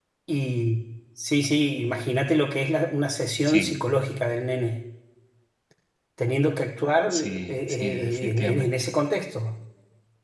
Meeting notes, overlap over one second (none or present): present